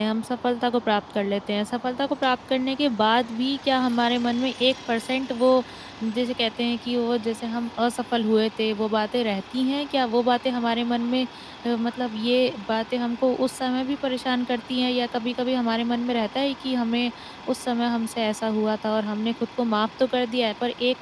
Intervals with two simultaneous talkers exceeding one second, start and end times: none

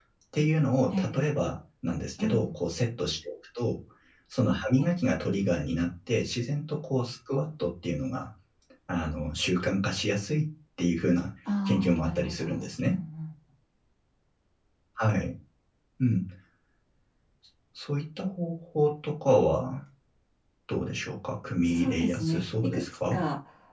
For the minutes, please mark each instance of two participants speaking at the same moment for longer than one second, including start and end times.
11.7-13.0, 21.6-23.2

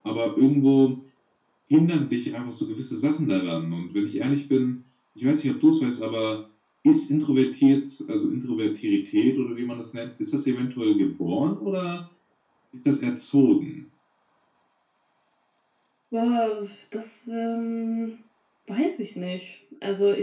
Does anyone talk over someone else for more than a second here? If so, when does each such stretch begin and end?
none

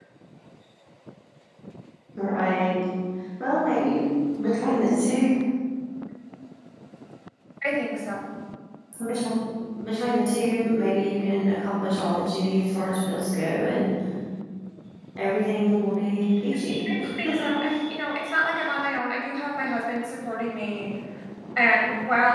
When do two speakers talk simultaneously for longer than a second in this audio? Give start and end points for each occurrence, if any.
none

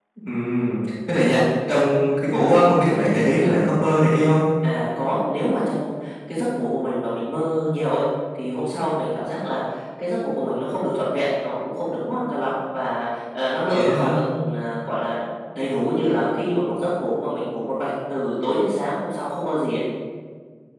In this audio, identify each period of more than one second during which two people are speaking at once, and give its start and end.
none

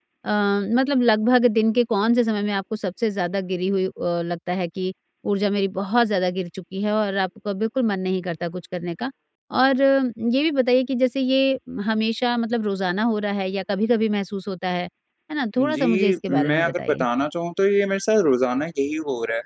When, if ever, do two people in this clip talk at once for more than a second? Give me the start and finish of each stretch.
15.6-17.1

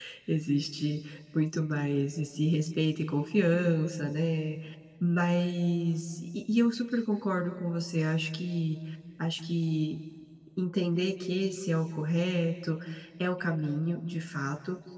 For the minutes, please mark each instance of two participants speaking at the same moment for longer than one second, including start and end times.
none

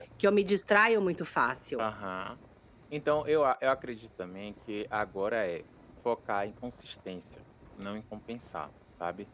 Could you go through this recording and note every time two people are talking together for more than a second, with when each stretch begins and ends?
none

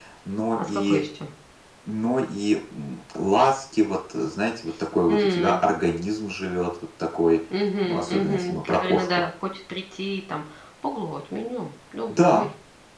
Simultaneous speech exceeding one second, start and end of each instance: 7.8-9.2

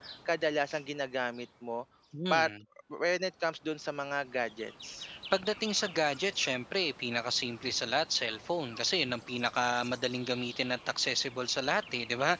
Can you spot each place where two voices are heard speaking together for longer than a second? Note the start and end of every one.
none

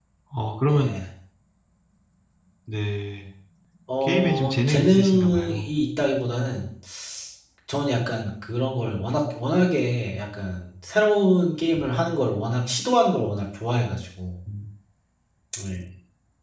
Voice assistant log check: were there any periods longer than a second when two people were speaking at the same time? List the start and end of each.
4.0-5.7

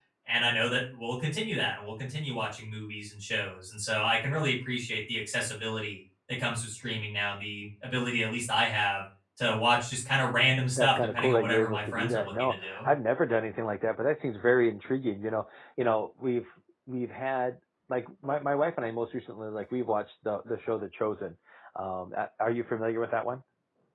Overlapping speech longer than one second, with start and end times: 10.8-12.8

